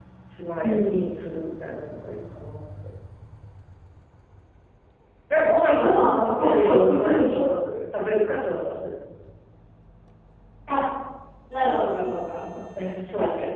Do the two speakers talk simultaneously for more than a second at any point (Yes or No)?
Yes